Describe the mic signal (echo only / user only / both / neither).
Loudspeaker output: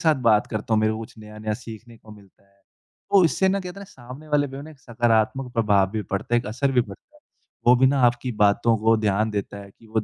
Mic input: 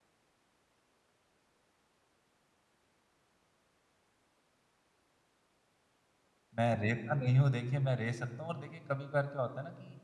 user only